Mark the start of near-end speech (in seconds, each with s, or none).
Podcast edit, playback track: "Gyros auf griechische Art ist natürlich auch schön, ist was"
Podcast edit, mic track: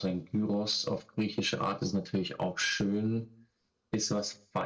none